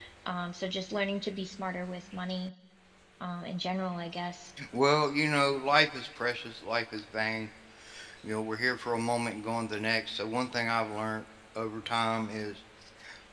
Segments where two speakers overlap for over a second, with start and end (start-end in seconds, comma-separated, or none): none